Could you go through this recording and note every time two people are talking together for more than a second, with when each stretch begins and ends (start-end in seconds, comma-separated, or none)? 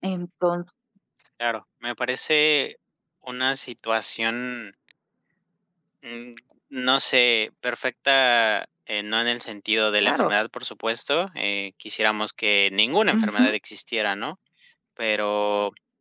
none